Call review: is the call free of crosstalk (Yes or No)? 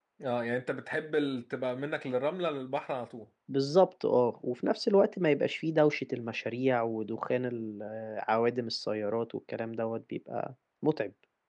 Yes